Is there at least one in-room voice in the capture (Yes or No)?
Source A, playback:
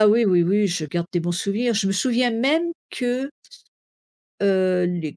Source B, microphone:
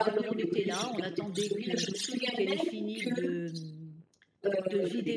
Yes